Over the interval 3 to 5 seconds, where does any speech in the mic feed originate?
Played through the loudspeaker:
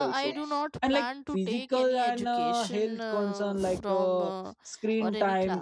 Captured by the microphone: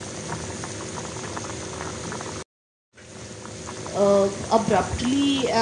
user only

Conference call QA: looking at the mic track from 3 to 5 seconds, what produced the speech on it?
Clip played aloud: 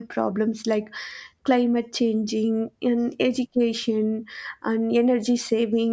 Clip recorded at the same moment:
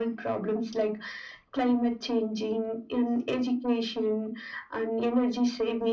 echo only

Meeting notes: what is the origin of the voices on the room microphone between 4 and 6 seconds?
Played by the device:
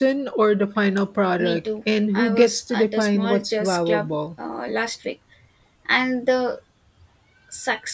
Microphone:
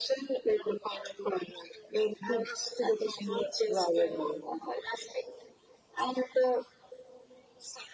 echo only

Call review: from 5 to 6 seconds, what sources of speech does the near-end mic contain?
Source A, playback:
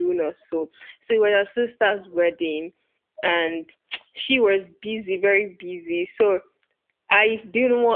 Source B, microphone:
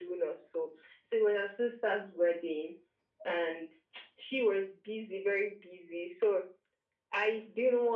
echo only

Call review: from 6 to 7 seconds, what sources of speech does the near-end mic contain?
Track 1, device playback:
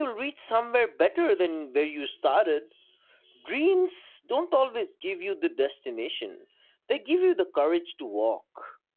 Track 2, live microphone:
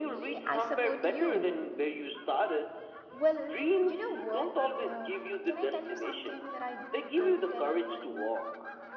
both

